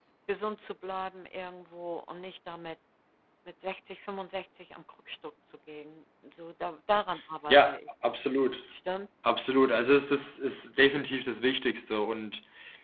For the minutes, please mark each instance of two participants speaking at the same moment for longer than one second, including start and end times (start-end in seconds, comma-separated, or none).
none